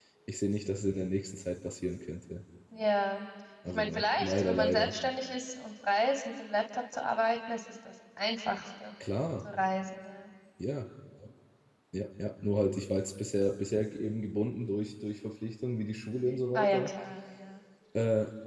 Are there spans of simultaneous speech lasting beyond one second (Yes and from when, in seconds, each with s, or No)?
Yes, from 3.7 s